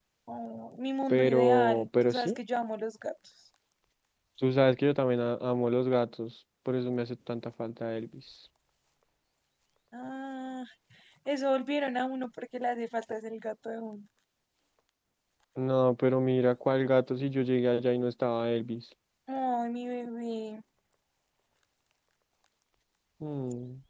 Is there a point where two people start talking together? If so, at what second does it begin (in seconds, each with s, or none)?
1.1 s